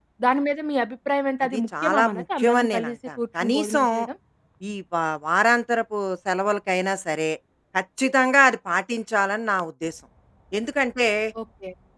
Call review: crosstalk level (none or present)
present